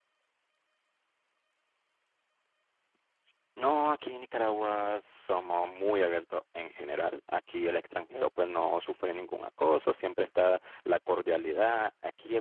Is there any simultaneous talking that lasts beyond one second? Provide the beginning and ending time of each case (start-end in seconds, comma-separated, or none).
none